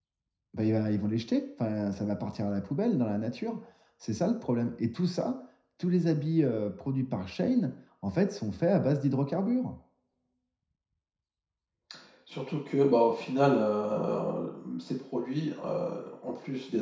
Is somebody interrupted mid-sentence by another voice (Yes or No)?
No